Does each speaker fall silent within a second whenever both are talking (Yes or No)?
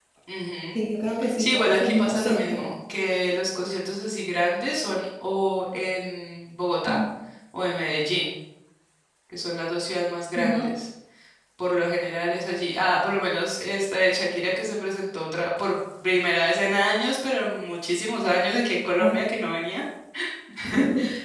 No